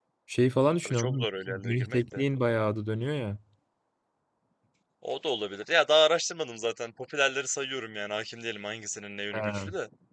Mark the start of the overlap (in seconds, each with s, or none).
0.8 s